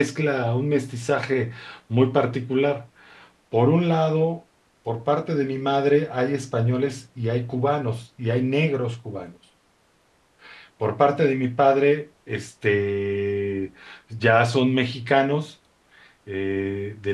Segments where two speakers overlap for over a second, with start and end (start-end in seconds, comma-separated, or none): none